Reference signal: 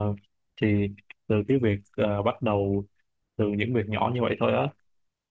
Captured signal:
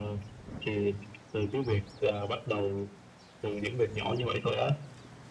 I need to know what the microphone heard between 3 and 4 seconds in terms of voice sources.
echo only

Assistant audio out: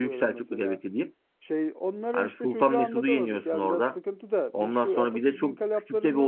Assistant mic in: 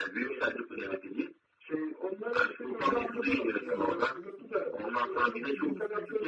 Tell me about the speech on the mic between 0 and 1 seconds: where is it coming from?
echo only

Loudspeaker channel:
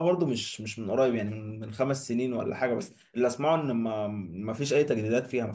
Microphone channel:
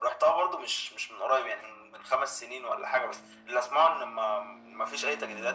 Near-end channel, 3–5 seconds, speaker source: echo only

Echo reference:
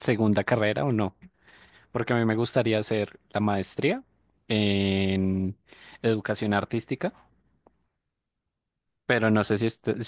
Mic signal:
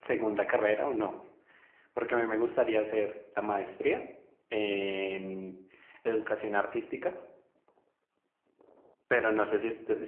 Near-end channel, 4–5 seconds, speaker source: echo only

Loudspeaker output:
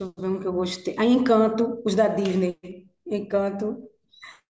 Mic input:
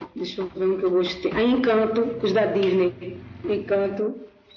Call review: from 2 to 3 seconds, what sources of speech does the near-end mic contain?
echo only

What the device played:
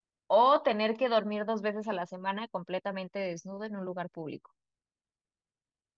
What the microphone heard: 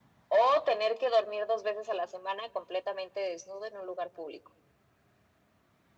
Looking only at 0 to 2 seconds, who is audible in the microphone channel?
echo only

